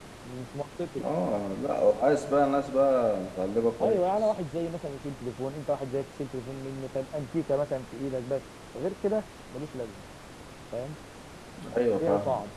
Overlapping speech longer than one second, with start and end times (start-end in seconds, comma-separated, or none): none